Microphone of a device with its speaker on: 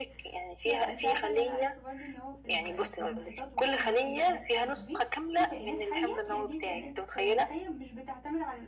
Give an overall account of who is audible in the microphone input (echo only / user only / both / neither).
both